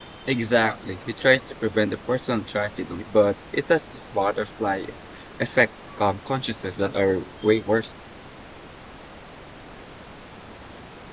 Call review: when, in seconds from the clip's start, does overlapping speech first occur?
none

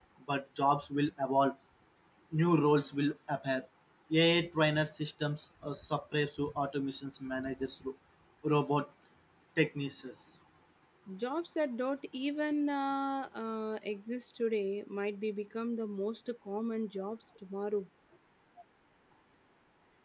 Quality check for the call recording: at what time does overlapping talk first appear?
none

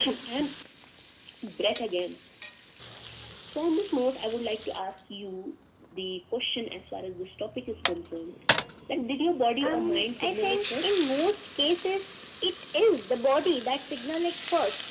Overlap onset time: 9.6 s

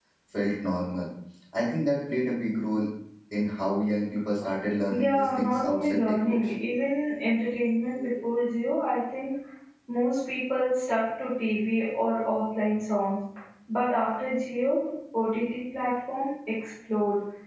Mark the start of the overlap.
4.9 s

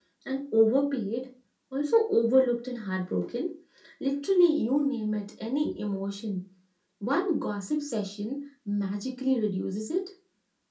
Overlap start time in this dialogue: none

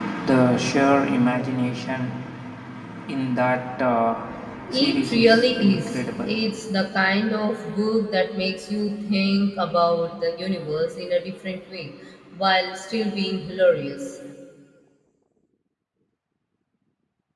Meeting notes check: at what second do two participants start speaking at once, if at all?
4.7 s

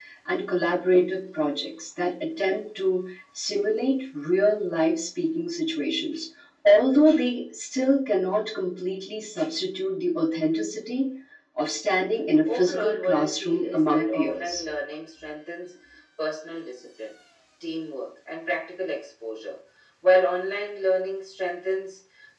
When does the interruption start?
12.4 s

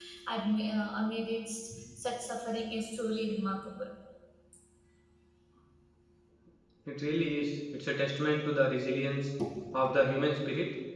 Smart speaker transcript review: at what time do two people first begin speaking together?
none

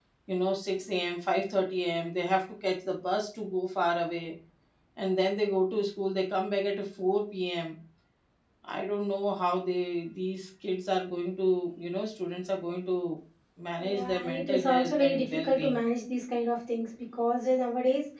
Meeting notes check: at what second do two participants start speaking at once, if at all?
13.8 s

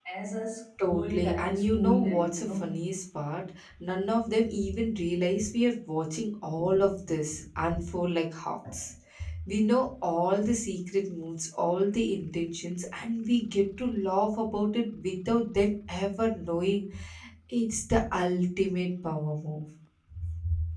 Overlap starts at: 0.9 s

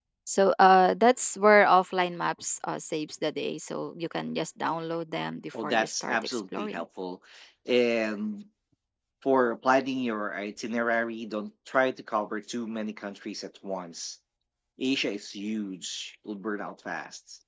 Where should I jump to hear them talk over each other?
5.5 s

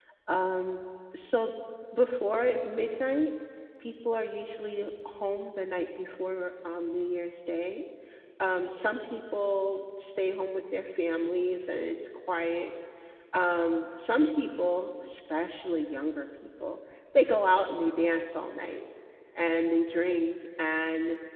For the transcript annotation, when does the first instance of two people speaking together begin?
none

